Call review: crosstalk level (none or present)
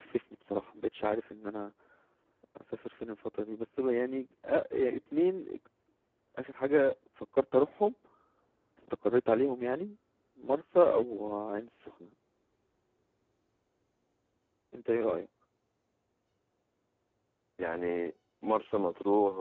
none